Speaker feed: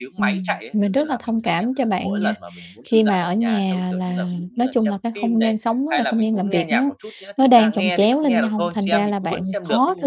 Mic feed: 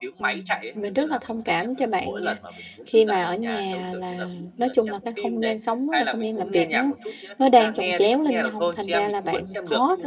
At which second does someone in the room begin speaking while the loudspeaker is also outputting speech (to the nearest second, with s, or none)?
none